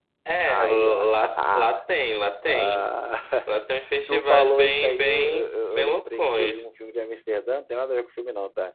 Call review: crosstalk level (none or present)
present